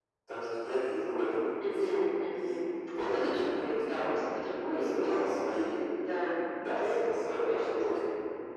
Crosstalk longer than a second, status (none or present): present